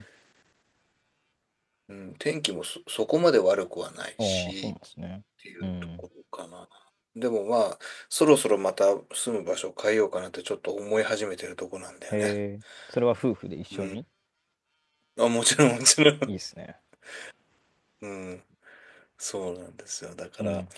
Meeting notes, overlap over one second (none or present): none